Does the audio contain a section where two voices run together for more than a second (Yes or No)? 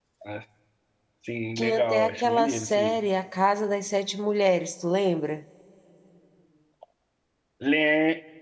Yes